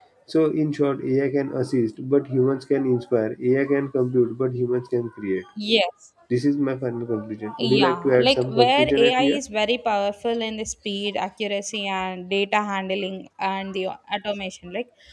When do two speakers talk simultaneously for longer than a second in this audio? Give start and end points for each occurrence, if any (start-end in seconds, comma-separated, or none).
7.6-9.4